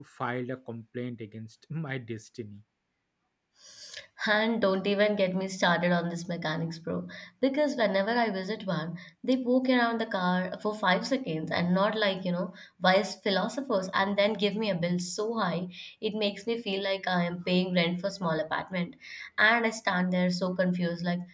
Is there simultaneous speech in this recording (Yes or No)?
No